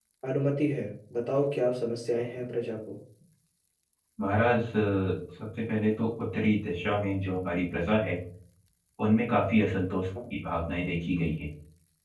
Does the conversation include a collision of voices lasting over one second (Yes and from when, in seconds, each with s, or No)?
No